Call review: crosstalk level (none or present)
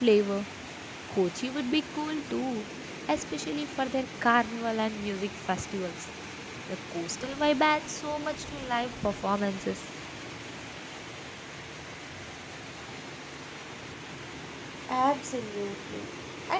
none